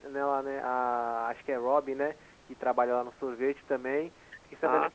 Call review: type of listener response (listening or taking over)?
listening